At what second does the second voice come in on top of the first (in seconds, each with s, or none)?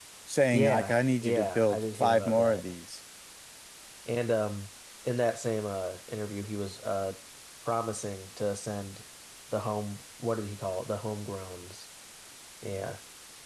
0.5 s